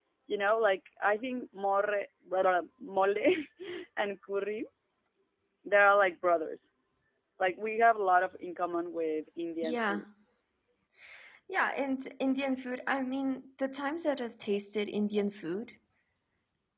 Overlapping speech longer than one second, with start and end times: none

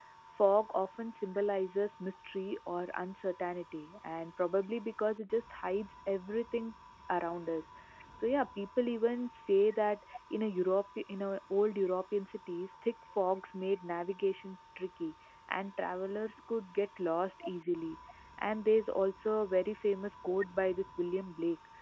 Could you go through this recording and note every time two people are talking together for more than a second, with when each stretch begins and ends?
none

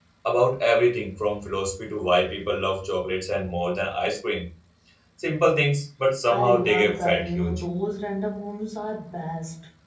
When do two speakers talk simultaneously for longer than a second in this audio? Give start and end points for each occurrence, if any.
6.3-7.6

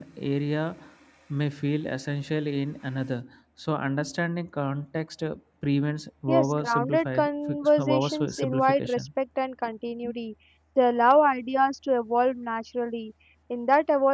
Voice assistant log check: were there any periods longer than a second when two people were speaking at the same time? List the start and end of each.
6.3-9.1

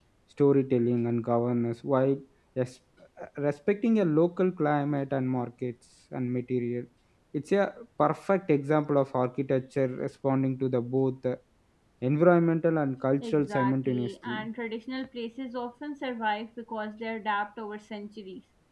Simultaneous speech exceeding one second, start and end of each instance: 13.2-14.5

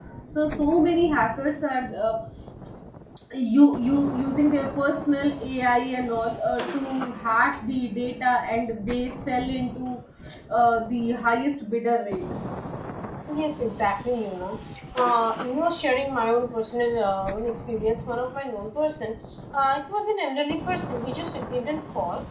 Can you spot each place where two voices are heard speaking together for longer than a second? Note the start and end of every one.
none

